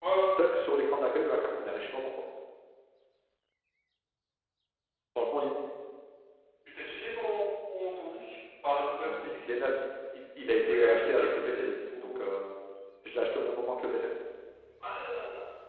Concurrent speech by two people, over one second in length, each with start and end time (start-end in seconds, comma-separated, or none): 10.7-12.2